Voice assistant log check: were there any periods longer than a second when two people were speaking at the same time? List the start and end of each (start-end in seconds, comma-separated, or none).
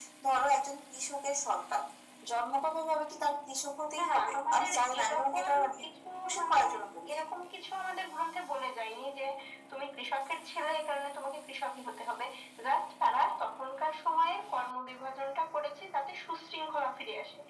4.0-5.8